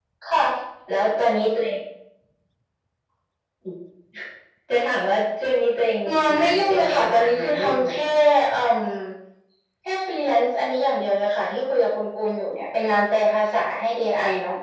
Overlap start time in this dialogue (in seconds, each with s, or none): 6.4 s